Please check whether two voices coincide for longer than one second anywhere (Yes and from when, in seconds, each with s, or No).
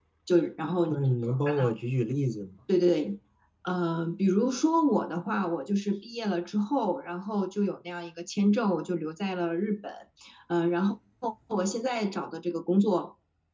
No